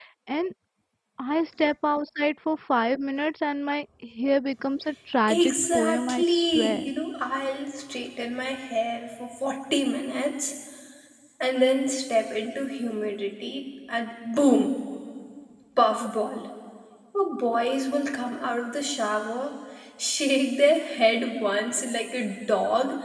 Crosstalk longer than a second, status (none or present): present